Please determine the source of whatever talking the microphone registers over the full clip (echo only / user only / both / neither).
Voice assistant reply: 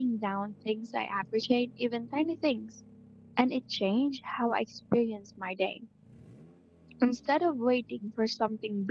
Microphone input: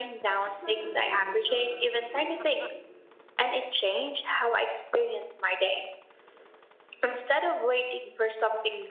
both